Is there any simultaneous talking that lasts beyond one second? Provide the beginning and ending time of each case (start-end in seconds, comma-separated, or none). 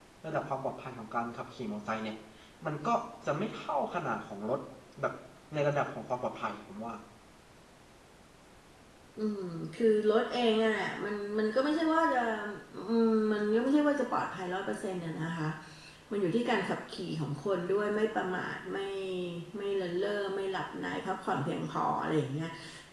none